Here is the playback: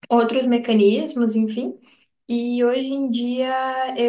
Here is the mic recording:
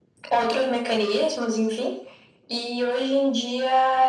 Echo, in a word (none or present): present